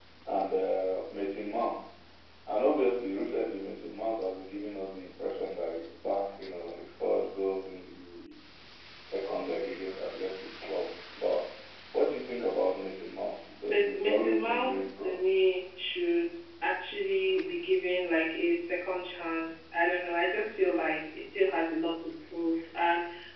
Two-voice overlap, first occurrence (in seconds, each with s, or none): 13.7 s